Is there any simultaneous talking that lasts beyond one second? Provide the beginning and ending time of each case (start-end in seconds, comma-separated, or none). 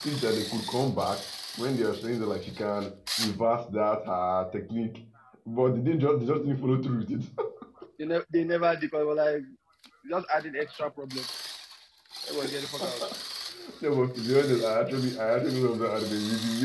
none